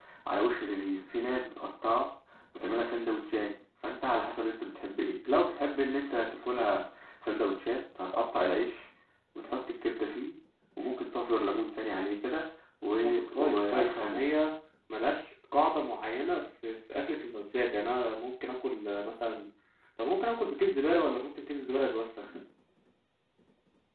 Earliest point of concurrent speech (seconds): 13.0 s

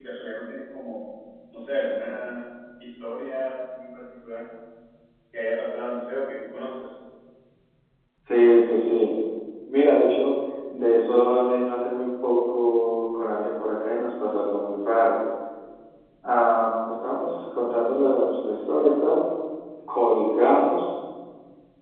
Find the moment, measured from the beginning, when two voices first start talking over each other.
none

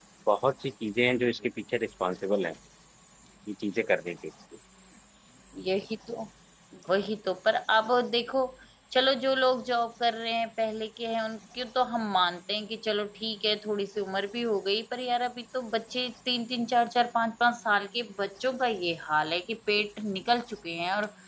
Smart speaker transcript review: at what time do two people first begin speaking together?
none

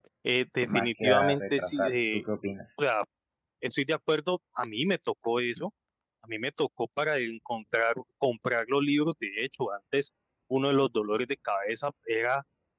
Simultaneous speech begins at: 0.7 s

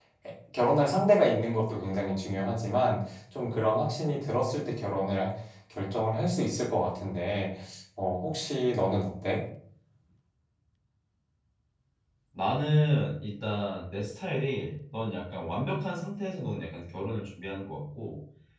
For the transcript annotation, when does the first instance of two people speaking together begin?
none

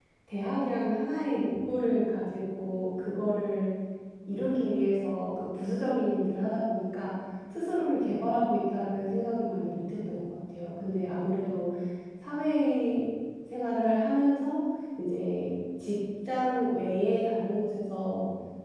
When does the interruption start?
none

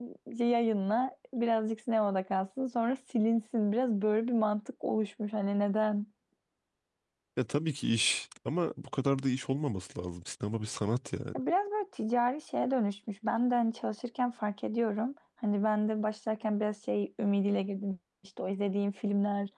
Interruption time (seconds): none

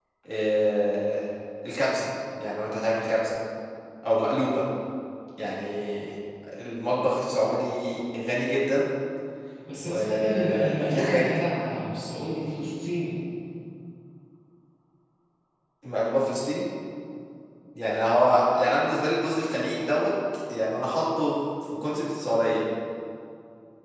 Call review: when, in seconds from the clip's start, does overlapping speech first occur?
9.9 s

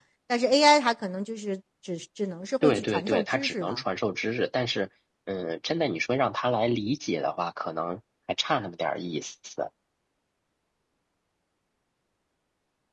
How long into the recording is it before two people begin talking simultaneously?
2.6 s

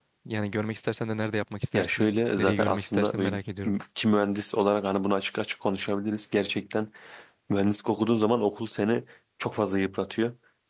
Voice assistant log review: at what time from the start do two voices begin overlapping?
1.7 s

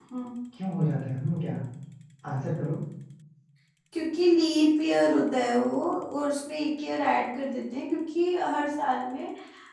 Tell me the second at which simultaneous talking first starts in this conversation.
none

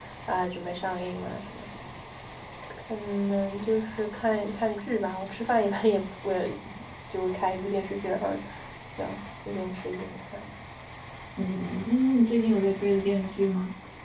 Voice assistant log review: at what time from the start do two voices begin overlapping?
none

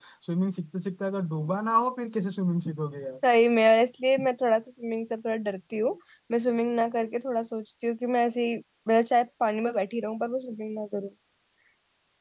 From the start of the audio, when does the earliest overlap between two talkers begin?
none

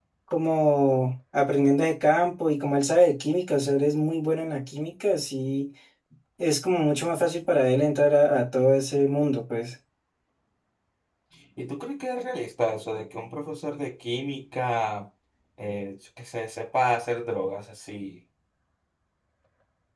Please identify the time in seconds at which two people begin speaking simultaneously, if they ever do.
none

